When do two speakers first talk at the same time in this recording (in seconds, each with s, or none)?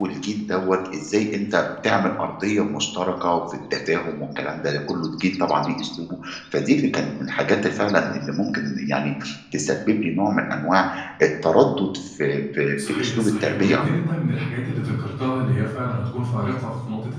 12.8 s